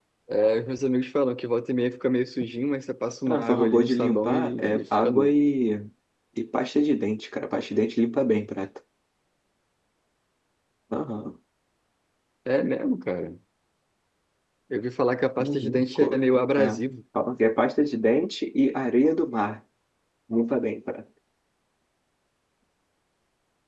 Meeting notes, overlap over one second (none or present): present